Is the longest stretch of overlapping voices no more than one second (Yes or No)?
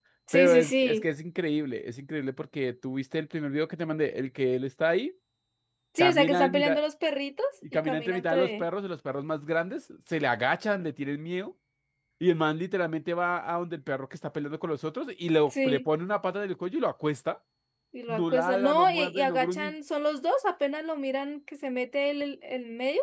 No